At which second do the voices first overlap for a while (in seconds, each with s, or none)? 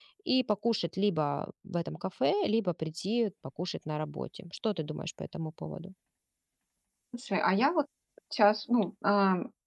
none